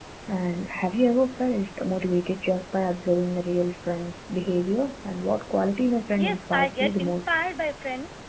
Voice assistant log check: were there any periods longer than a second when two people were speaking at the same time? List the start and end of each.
6.2-7.4

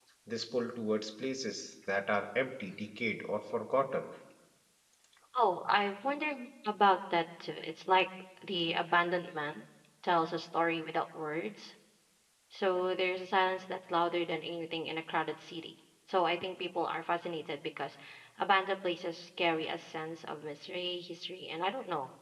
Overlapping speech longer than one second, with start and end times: none

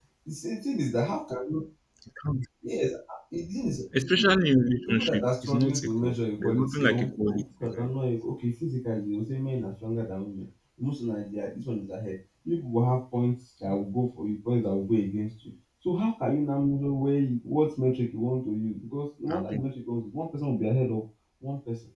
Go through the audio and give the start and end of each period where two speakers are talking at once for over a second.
4.9-8.0

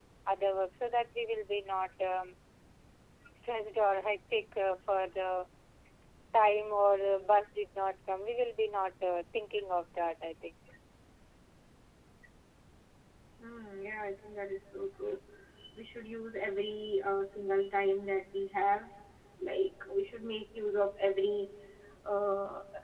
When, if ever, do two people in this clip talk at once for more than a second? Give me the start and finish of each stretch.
none

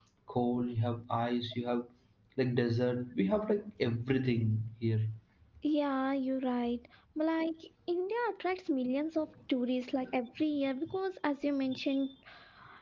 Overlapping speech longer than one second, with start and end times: none

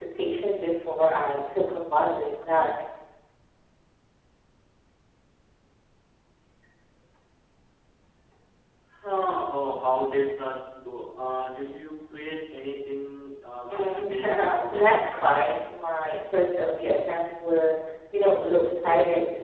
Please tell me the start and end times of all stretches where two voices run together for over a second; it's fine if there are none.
13.7-15.2

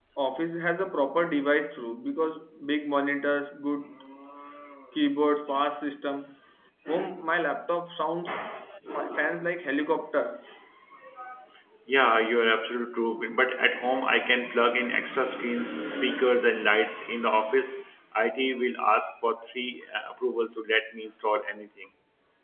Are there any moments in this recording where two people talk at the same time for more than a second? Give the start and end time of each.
none

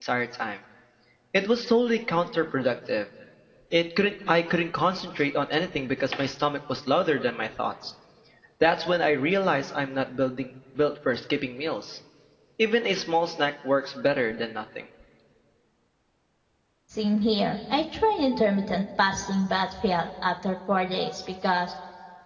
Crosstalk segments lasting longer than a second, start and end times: none

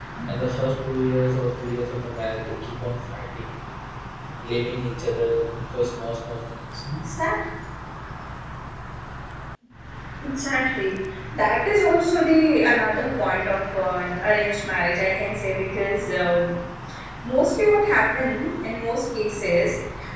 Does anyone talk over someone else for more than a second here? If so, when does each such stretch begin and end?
none

